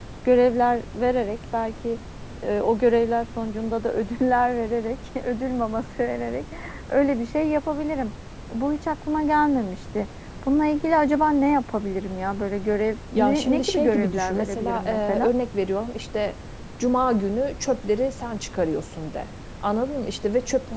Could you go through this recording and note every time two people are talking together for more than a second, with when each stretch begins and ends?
13.1-15.3

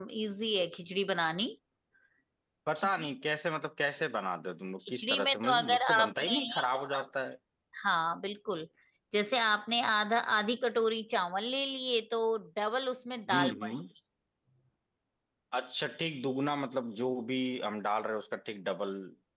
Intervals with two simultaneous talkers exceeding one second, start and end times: 4.9-6.4

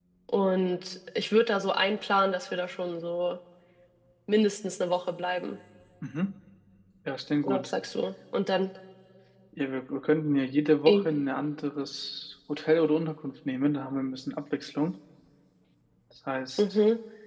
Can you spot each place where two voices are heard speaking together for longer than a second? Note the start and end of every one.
none

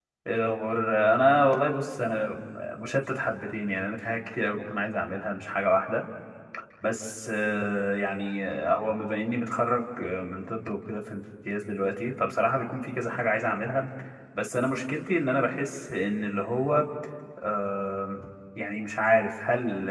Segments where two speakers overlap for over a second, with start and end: none

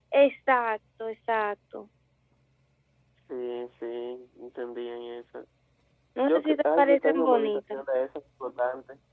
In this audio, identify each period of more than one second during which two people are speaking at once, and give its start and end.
6.2-7.8

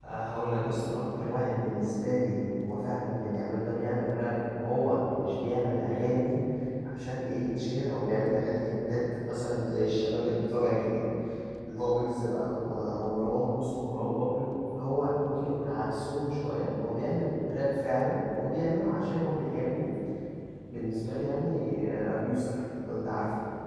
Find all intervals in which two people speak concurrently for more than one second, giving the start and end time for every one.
none

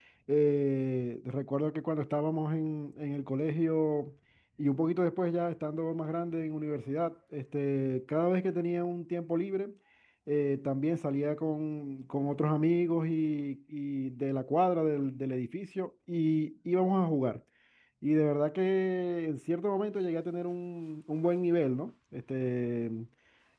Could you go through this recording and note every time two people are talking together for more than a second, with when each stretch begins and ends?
none

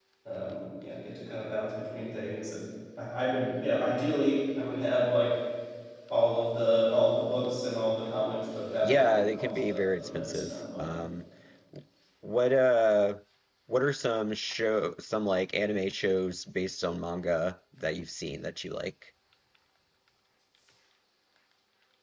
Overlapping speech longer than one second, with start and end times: 8.8-10.9

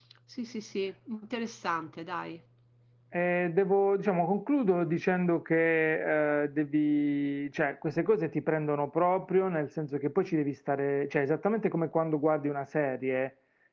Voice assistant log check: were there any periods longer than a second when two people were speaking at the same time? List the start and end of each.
none

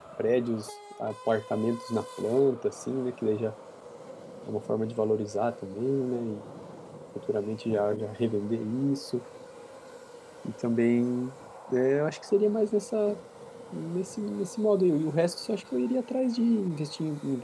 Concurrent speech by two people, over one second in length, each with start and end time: none

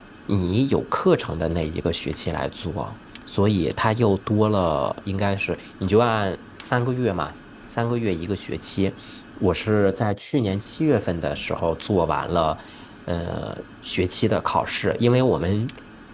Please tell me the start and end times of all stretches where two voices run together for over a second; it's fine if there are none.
none

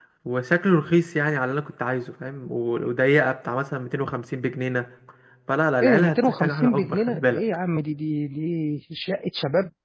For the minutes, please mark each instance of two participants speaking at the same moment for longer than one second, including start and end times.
5.8-7.4

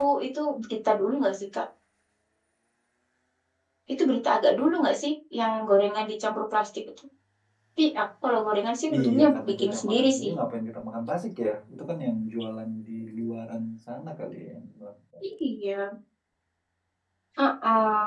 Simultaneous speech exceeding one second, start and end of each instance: 8.9-10.3

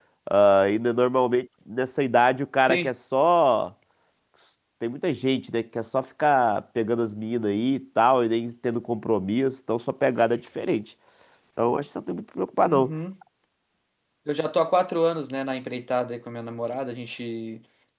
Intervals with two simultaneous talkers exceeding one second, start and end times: none

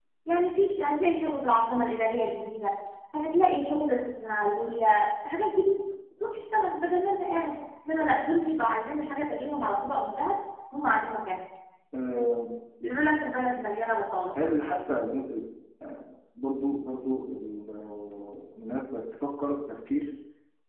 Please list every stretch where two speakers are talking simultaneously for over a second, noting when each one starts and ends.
none

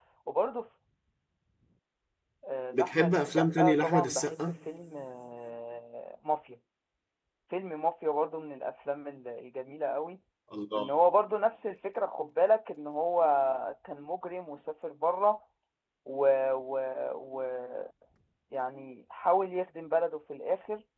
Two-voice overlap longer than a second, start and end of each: 2.7-4.5

